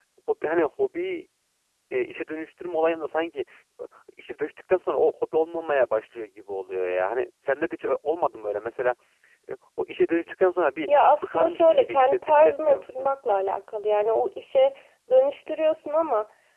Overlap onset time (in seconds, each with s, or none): 11.2 s